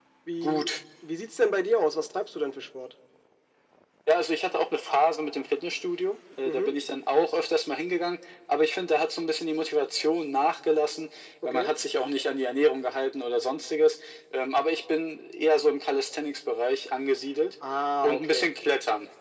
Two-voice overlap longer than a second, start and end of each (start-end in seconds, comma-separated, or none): none